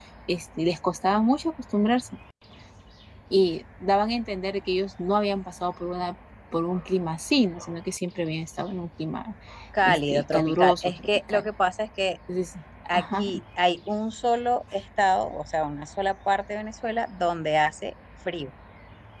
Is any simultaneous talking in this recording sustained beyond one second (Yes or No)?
Yes